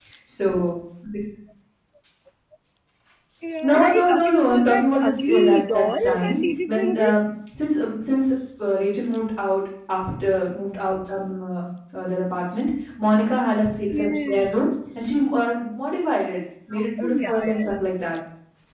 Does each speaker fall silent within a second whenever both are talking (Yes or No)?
No